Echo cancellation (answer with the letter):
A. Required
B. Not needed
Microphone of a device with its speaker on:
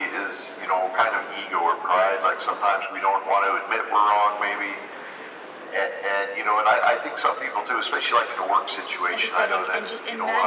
A